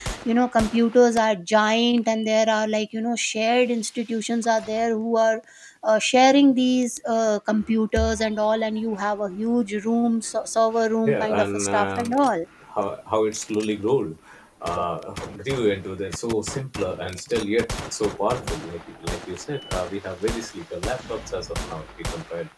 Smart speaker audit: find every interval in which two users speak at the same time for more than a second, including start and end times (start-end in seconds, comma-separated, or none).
11.0-12.3